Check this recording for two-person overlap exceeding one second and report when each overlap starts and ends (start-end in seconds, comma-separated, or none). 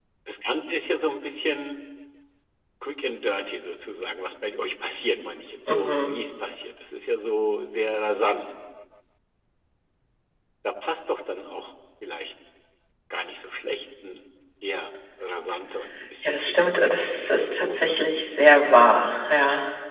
16.2-18.0